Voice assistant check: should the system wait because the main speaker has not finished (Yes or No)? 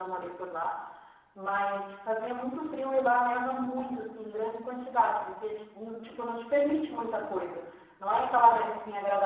Yes